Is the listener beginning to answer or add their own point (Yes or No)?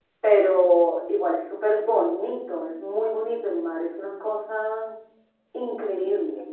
Yes